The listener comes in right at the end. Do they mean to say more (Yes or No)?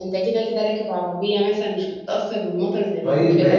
Yes